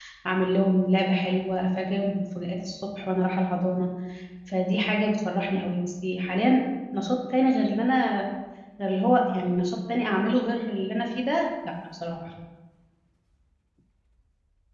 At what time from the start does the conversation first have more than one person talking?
none

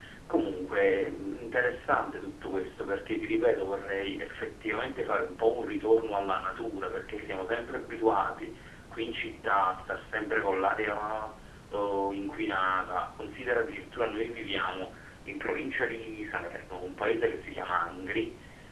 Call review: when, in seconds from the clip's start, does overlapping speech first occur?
none

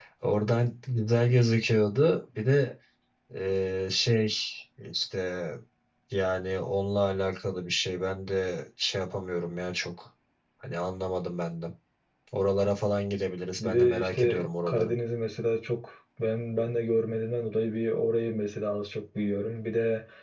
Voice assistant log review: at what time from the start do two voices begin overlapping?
13.6 s

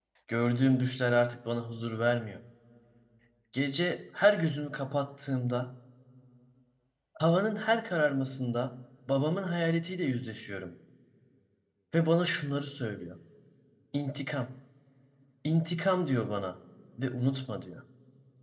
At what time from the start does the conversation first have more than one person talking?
none

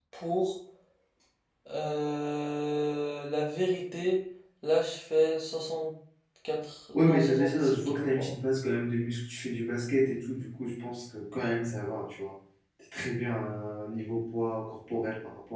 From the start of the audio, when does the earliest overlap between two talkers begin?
6.9 s

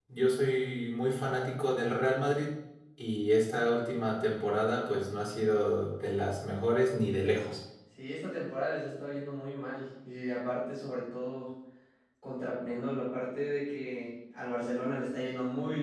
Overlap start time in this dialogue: none

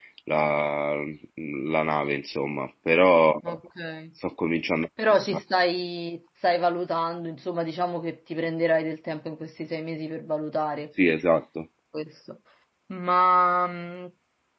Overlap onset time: none

